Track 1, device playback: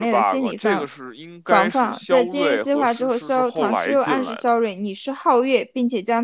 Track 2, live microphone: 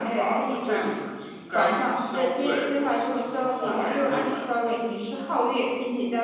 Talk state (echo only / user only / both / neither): echo only